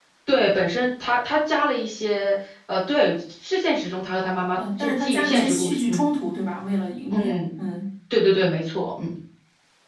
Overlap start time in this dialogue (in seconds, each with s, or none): 4.5 s